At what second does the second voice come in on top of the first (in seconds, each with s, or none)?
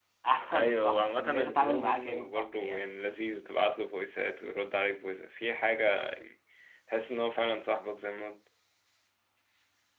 0.5 s